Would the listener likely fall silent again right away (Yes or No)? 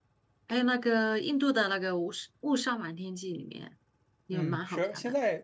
No